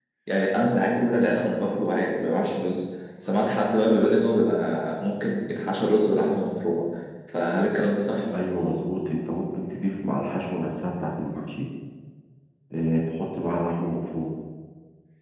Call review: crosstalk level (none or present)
none